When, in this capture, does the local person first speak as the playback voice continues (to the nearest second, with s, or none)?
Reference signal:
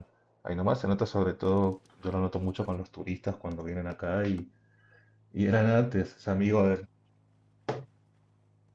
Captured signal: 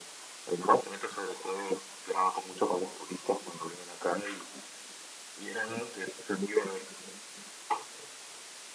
none